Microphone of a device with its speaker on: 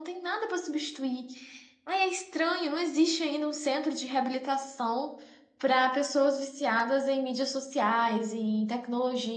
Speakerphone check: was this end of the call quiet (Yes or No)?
Yes